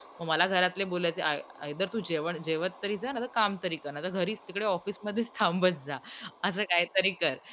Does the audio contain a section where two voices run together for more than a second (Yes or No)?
No